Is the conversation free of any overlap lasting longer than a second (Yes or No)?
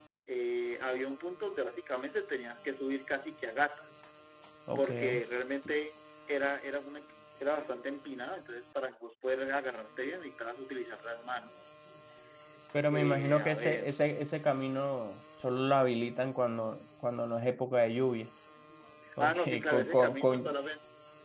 No